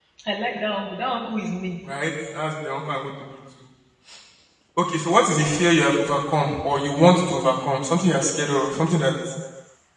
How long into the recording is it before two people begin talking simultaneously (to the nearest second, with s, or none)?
none